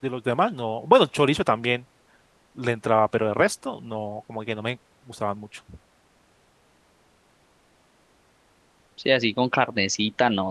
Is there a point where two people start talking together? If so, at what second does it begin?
none

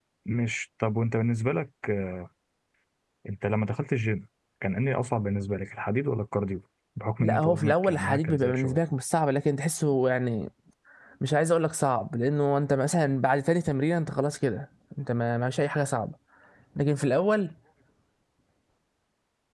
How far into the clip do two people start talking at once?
7.2 s

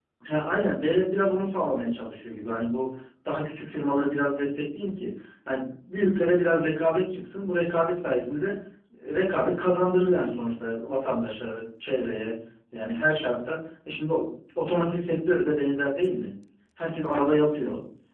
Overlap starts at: none

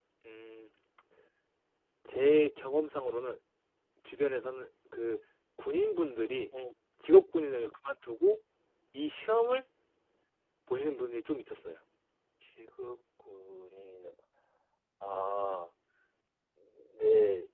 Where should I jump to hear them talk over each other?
none

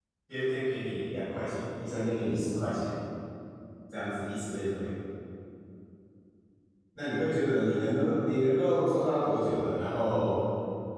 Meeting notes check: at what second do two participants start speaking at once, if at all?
none

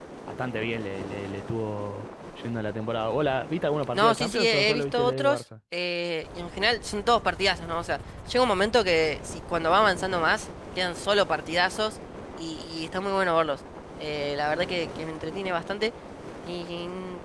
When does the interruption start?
3.9 s

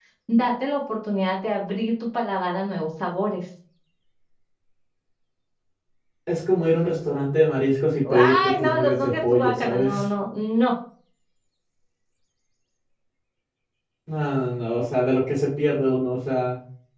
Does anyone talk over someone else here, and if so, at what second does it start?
8.1 s

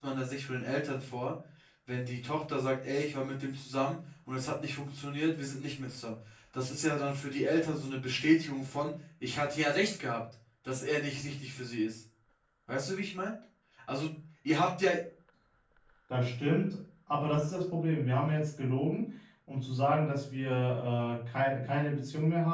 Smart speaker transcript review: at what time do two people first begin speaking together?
none

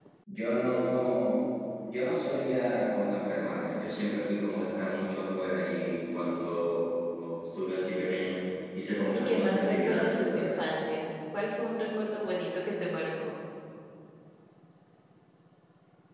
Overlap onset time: 9.1 s

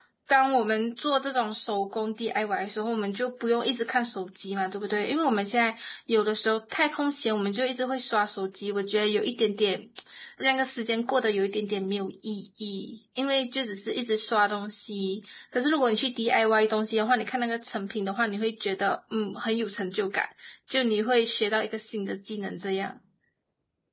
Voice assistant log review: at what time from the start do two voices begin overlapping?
none

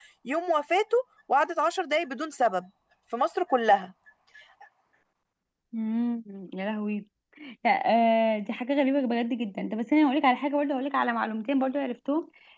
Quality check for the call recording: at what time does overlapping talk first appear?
none

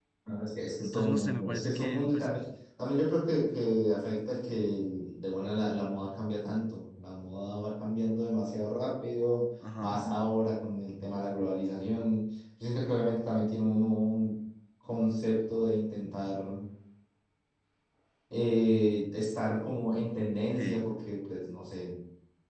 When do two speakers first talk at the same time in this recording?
0.8 s

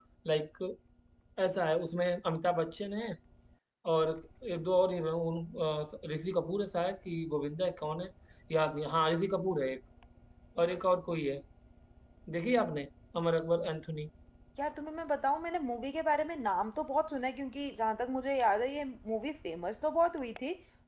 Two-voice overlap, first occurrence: none

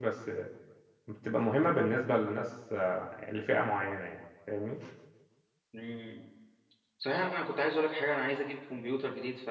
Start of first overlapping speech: none

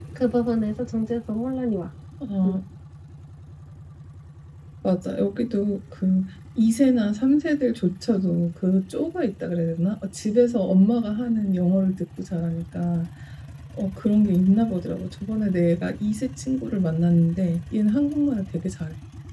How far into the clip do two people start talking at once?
none

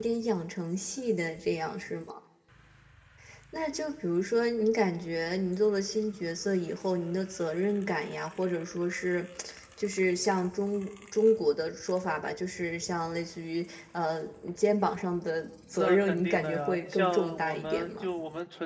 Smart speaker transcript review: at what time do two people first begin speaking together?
15.7 s

